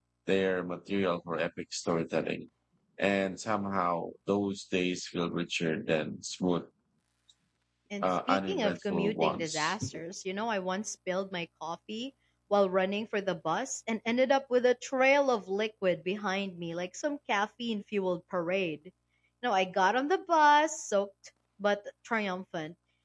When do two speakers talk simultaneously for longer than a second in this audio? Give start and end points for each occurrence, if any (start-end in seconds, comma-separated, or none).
8.0-9.8